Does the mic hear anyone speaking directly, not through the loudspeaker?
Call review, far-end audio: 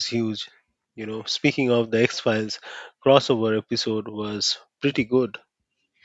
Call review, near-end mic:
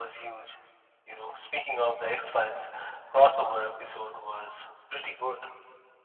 No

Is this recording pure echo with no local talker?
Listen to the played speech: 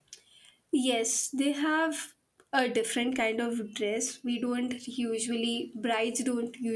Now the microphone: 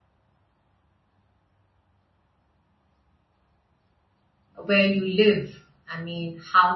No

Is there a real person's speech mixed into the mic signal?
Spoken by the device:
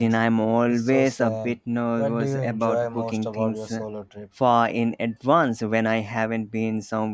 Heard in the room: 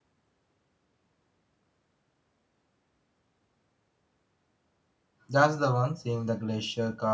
Yes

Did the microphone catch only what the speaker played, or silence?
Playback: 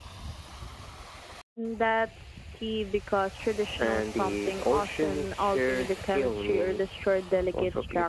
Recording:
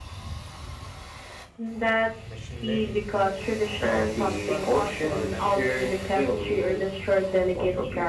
No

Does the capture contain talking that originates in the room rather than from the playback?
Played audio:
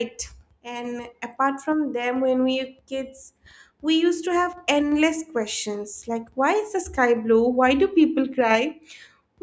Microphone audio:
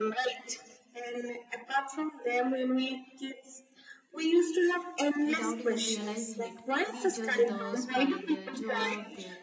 Yes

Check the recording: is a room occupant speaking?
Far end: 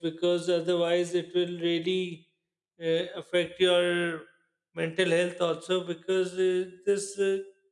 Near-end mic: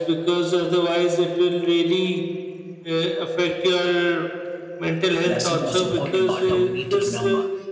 Yes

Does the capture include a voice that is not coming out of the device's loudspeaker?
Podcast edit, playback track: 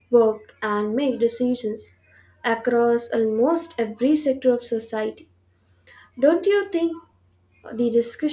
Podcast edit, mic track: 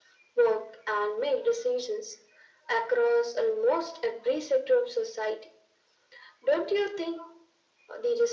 No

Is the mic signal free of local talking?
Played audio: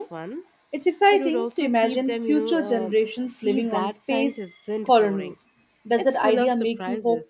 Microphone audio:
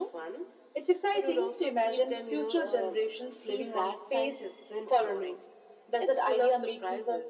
Yes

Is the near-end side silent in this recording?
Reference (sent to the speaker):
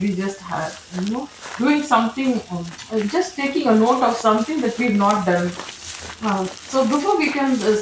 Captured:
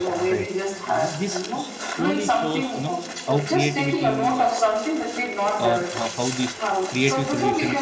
No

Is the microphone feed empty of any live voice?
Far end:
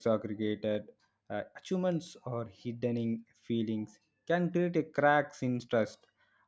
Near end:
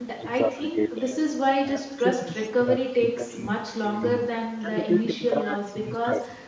No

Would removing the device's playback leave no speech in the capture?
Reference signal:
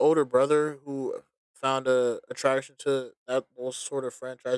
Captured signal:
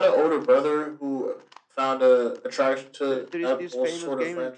No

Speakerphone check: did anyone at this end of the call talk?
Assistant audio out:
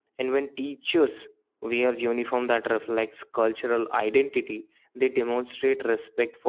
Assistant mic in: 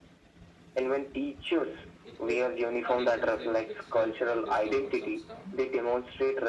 Yes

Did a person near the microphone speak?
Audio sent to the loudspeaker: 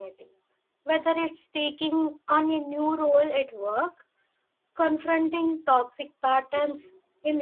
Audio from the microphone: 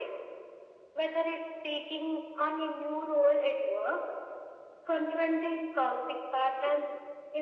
No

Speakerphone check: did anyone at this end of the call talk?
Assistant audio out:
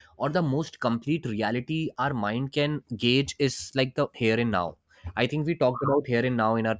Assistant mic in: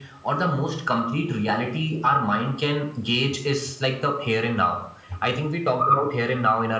No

